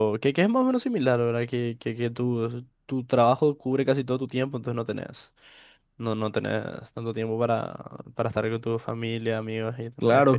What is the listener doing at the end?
taking over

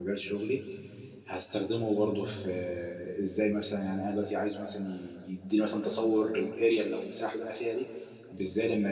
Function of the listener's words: listening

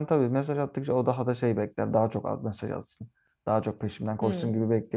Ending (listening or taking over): listening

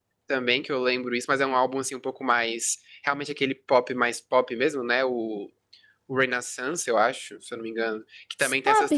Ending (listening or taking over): listening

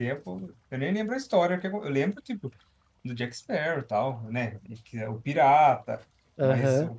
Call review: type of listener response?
listening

